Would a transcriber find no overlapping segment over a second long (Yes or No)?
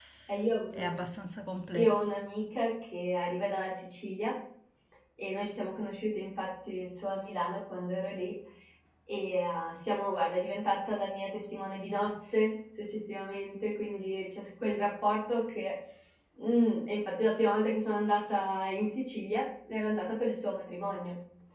Yes